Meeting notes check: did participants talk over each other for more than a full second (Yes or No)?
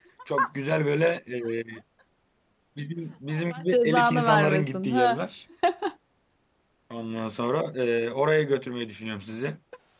Yes